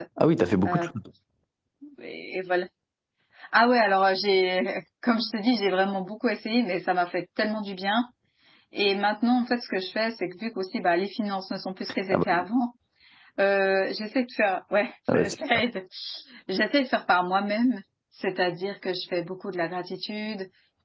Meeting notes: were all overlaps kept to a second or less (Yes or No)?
Yes